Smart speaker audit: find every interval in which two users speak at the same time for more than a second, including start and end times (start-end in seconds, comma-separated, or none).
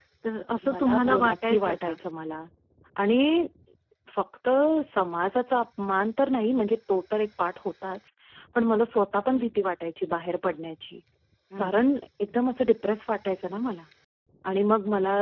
0.7-1.9